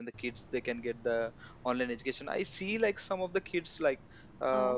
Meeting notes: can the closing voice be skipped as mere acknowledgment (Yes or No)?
Yes